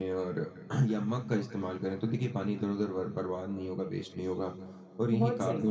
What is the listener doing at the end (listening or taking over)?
listening